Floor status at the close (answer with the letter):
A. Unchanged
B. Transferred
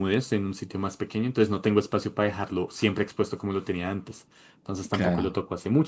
A